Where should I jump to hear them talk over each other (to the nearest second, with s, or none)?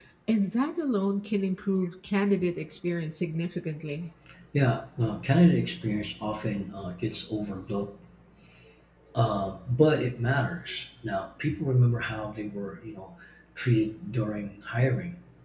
none